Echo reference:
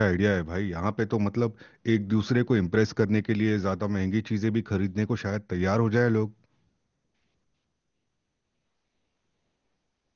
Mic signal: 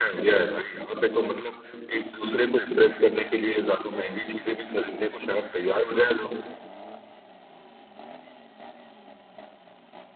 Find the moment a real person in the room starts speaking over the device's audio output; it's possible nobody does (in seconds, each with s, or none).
none